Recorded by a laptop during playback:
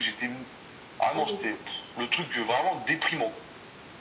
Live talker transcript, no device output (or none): Oui.